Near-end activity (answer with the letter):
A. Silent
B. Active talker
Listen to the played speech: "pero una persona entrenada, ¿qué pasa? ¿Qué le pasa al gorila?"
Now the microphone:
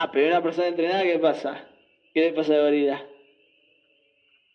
A